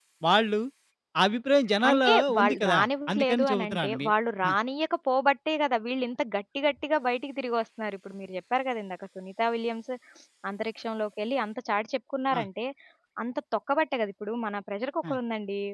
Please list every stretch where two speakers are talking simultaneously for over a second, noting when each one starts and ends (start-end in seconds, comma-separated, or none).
1.9-4.1